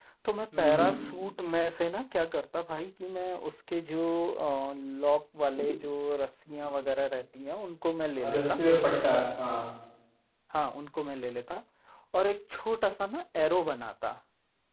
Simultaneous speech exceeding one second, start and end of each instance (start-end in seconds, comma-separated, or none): none